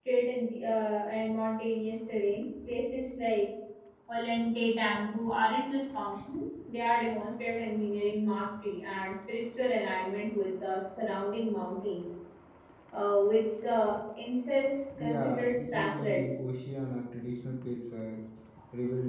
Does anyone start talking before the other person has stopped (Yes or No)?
Yes